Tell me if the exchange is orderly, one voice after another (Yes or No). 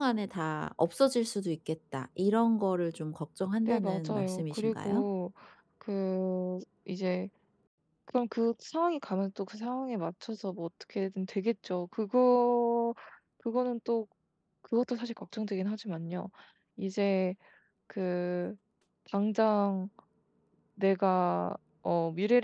No